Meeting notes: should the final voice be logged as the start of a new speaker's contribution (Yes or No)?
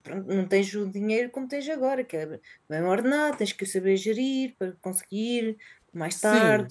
Yes